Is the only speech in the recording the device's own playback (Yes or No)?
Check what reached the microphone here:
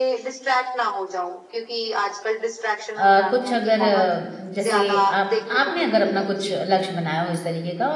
No